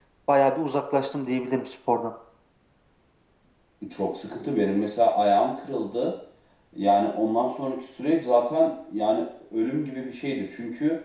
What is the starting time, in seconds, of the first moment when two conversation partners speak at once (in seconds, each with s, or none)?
none